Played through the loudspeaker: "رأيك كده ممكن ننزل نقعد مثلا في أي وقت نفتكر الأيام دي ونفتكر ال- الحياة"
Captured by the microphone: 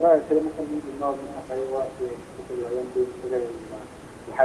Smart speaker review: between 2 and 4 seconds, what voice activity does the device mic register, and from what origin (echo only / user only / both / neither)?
echo only